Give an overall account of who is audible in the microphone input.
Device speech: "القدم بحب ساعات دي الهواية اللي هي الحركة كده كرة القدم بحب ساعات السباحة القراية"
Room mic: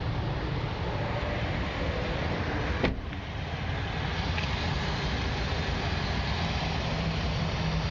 neither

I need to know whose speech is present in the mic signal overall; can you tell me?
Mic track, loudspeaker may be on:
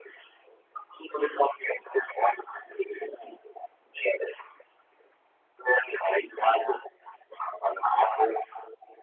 echo only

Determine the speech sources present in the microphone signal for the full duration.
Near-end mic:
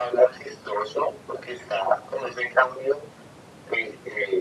echo only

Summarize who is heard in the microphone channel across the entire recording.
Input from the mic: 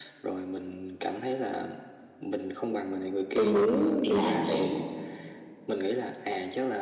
both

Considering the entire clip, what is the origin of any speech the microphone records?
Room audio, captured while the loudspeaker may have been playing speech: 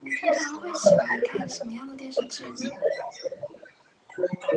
both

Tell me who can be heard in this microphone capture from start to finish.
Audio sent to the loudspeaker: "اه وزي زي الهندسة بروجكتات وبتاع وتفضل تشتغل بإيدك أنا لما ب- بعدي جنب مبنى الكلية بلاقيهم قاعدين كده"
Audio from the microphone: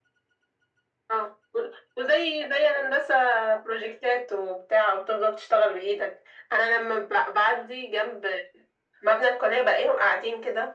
echo only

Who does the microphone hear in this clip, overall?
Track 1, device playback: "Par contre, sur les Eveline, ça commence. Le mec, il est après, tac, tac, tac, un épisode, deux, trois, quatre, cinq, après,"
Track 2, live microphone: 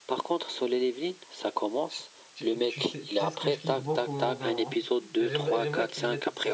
both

